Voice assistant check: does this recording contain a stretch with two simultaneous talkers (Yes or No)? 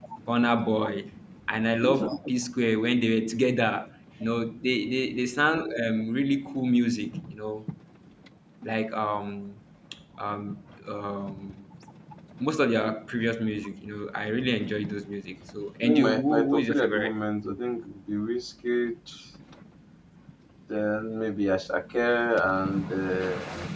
Yes